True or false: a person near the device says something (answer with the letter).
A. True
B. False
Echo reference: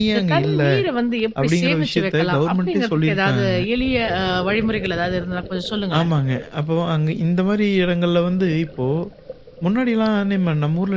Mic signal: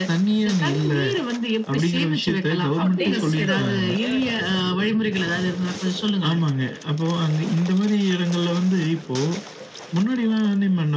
A